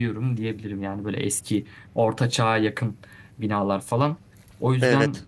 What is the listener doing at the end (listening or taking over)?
listening